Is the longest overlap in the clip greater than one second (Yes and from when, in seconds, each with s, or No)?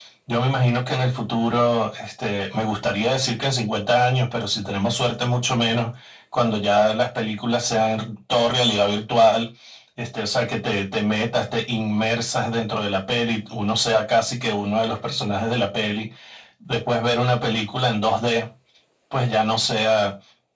No